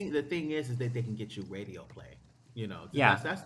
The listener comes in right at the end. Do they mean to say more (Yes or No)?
No